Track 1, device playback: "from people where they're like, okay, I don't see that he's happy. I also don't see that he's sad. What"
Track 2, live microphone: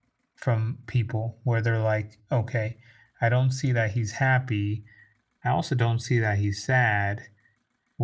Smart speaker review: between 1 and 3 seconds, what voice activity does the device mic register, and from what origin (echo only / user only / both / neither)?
echo only